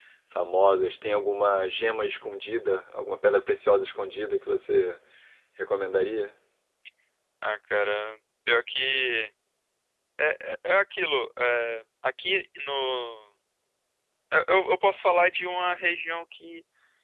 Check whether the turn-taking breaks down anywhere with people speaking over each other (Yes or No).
No